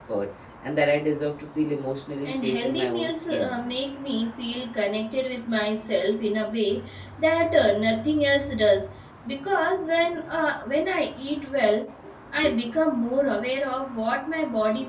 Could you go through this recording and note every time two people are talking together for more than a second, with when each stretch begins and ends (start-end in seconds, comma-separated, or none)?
2.2-3.5